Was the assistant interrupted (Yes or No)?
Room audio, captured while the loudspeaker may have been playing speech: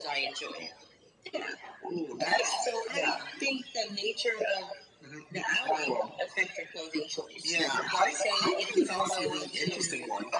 No